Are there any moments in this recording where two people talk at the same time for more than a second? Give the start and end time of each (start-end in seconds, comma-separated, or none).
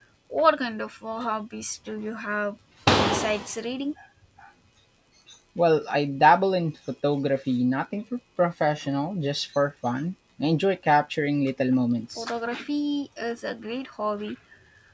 none